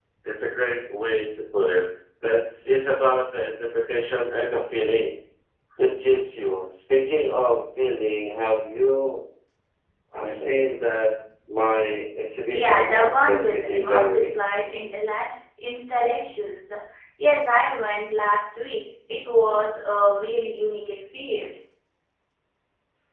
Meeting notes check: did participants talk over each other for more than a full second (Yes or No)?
Yes